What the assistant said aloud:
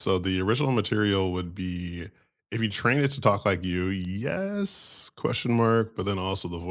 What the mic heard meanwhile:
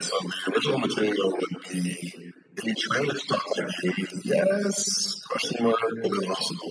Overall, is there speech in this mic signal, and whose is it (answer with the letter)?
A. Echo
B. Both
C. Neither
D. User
A